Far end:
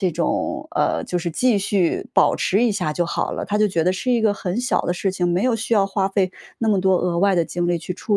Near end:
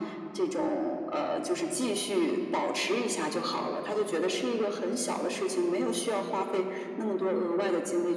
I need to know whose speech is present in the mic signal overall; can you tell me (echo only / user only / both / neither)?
echo only